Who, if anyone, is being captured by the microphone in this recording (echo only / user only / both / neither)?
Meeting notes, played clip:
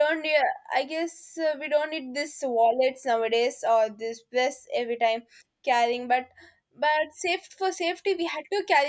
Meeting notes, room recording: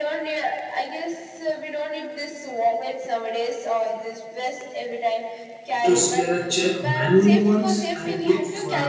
both